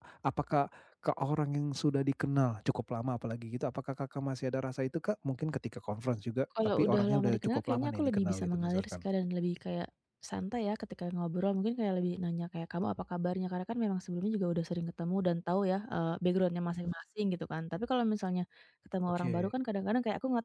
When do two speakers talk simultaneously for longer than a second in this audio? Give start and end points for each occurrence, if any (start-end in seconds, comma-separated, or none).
6.7-8.9